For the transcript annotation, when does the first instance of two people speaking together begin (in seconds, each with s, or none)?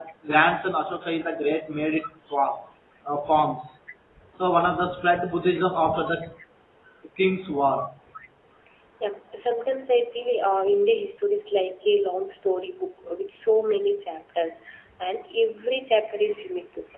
none